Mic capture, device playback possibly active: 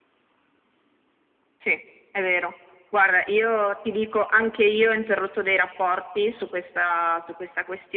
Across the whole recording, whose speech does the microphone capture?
echo only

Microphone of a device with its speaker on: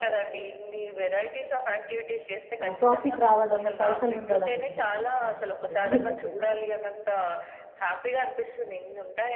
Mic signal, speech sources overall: both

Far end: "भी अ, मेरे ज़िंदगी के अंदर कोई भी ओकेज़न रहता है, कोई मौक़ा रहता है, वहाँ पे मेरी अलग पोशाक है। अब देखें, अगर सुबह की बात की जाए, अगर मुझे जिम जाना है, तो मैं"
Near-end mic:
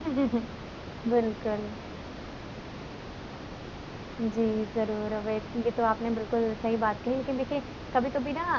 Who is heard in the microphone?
user only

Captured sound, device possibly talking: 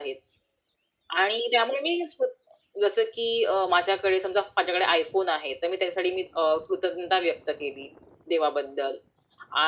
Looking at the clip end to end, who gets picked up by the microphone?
echo only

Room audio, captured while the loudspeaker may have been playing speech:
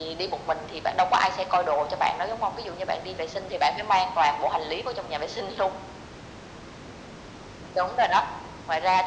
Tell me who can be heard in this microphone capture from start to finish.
echo only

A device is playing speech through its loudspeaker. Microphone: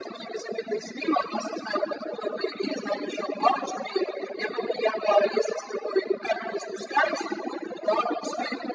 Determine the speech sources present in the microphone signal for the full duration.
echo only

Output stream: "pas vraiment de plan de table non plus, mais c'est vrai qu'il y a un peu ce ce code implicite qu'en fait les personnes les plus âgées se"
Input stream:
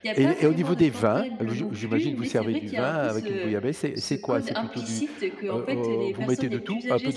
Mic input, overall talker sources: both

